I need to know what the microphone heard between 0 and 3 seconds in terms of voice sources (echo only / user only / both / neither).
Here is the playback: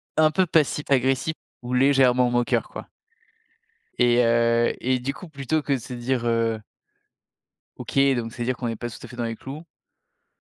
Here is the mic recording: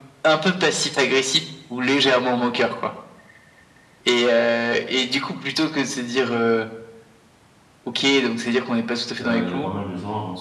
echo only